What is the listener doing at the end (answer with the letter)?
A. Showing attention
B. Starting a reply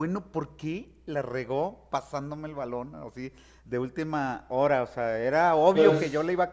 A